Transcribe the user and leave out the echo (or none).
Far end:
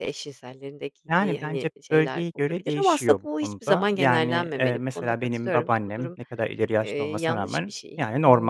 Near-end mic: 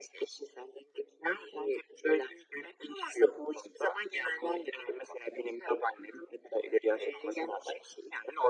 none